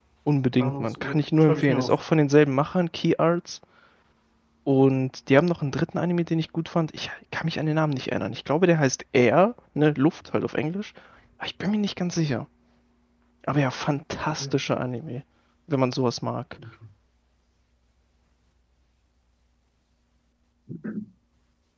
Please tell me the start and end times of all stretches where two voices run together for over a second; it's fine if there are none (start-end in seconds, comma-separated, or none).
0.6-2.0